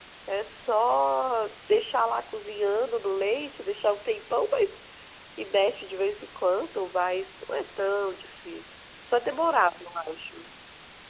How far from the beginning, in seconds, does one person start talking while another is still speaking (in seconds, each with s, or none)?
none